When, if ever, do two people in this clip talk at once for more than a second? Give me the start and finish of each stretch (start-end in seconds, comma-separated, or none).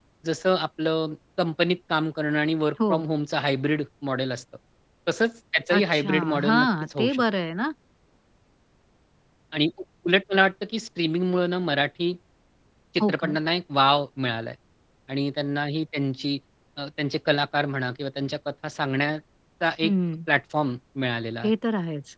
5.8-7.2